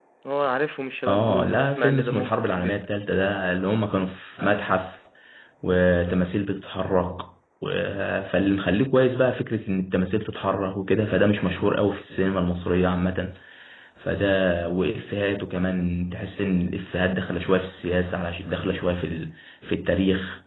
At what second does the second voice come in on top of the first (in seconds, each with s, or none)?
1.1 s